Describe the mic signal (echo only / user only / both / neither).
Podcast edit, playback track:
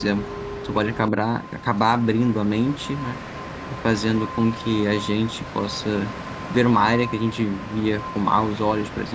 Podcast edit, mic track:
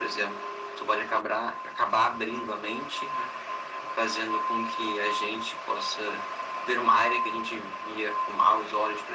echo only